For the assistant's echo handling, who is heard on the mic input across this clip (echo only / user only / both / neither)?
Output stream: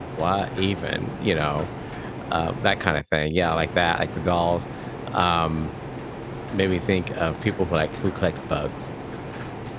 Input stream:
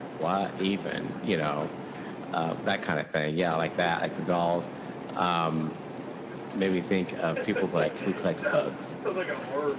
both